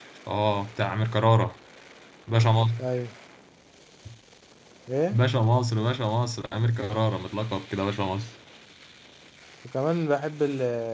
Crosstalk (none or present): none